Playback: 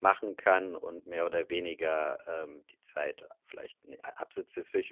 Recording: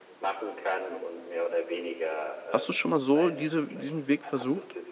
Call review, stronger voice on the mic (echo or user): user